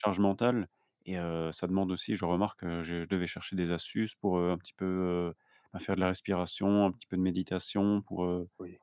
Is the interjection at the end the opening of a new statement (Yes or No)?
No